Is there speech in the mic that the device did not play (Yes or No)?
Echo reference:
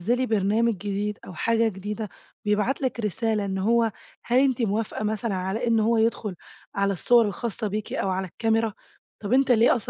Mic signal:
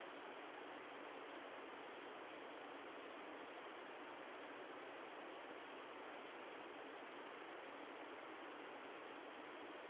No